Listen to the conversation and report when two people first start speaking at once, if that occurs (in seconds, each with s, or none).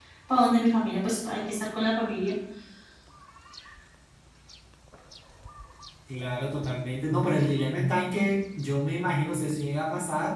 none